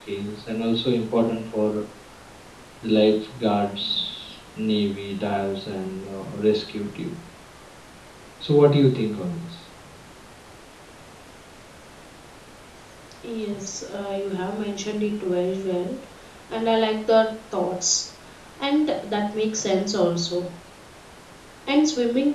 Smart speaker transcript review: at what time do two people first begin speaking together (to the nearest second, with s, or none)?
none